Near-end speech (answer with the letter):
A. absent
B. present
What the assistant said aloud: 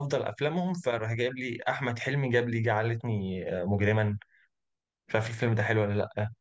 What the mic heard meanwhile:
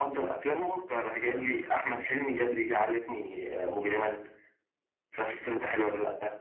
B